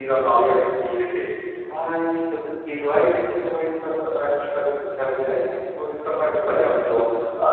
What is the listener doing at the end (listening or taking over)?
listening